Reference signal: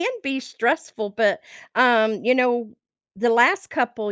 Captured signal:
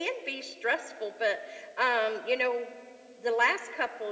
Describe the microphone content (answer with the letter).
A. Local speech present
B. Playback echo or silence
B